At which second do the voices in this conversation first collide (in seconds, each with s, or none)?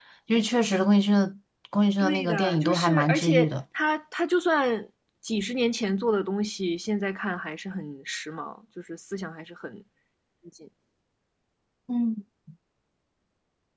2.0 s